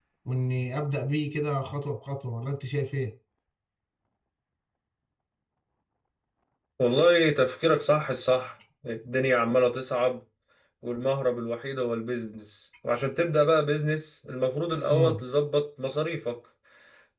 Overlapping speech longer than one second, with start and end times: none

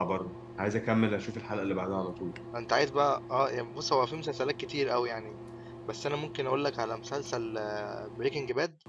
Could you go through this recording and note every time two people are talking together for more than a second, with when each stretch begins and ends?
none

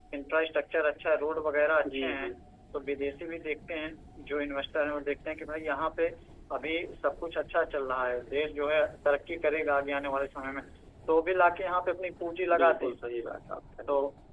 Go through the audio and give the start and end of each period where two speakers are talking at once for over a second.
none

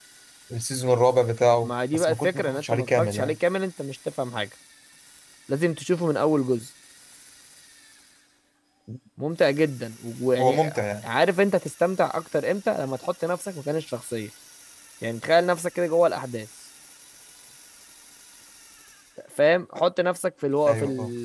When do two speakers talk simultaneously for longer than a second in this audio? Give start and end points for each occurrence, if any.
1.6-3.4

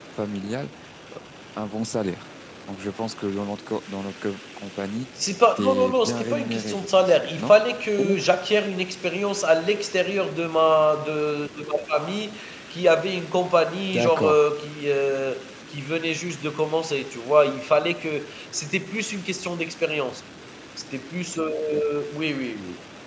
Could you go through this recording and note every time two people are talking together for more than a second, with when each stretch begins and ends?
5.6-7.5

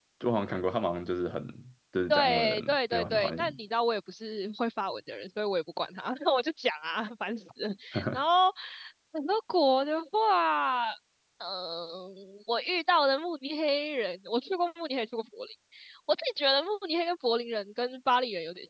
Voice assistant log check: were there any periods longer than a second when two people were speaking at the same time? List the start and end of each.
2.1-3.6

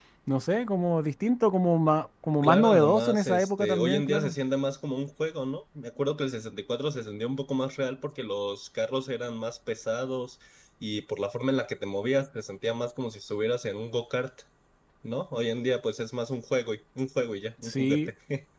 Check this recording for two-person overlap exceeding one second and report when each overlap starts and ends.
2.4-4.3

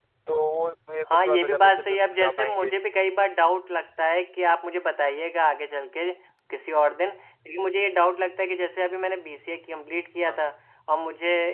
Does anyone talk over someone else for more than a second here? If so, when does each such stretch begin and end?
1.1-2.7

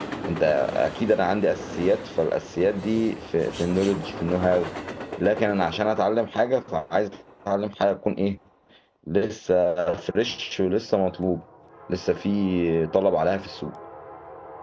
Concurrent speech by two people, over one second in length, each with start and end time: none

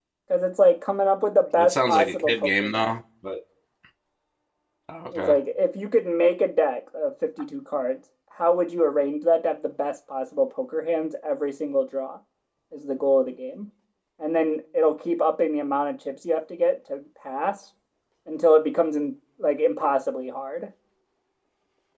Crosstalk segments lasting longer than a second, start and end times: 1.6-2.9

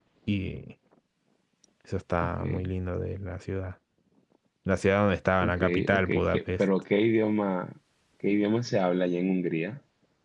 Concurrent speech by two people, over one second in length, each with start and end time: 5.4-6.6

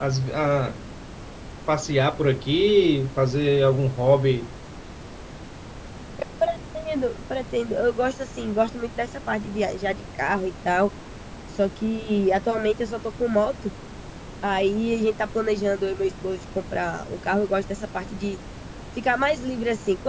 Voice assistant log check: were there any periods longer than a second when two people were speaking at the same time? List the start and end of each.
none

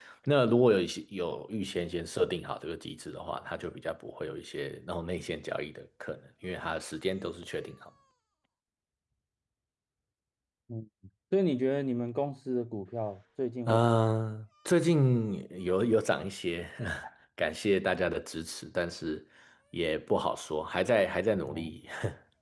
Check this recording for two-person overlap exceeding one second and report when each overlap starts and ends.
none

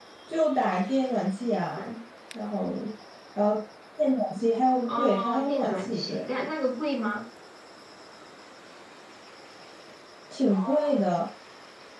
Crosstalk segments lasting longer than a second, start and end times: 4.8-6.2

